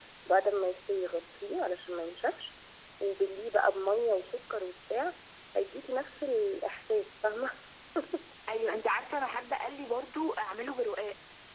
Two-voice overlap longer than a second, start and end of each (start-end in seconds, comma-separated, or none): none